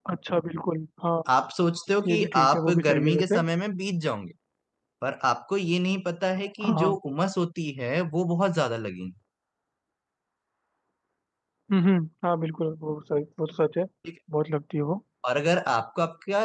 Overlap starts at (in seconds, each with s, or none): 2.1 s